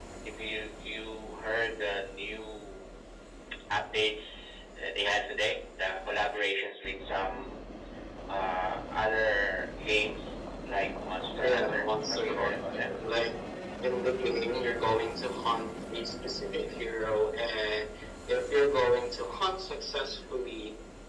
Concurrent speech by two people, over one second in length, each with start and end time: 11.4-12.9

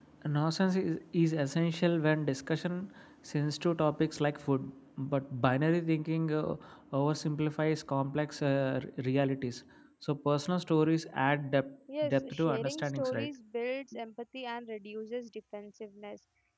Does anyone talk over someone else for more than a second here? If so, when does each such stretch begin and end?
12.0-13.3

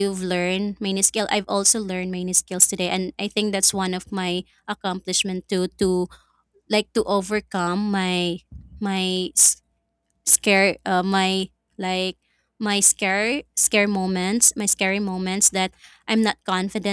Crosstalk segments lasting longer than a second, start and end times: none

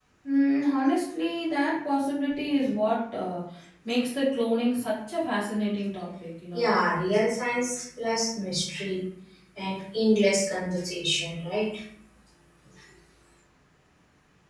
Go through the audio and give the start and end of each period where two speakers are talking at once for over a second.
none

